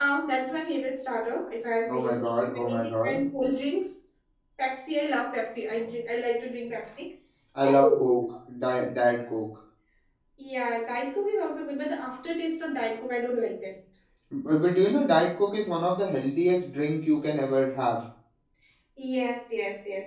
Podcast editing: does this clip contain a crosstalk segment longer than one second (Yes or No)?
Yes